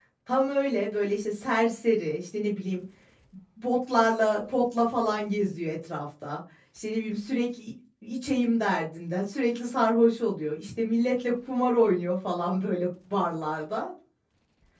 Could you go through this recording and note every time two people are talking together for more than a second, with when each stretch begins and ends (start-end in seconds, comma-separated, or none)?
none